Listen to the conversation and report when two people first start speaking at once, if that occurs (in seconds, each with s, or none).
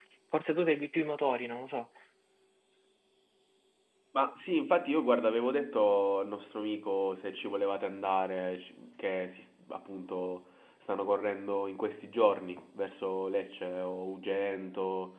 none